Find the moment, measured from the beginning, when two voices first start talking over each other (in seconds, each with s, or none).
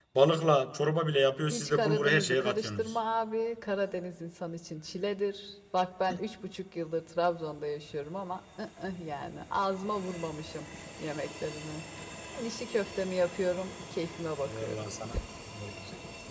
1.5 s